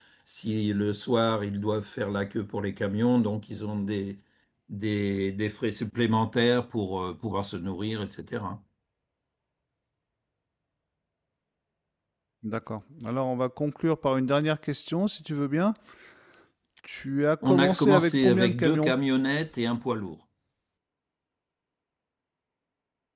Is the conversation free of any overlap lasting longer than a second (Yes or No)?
No